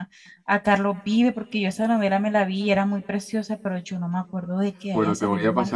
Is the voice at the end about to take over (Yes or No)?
Yes